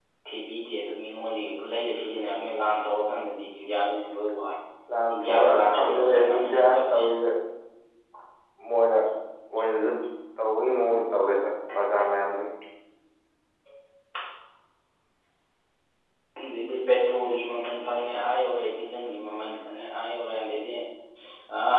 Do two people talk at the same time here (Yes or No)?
Yes